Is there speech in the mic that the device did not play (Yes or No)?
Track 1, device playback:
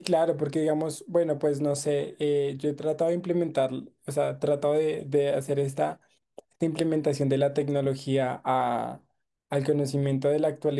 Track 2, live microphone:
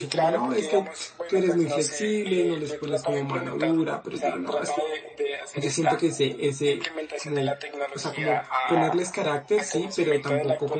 Yes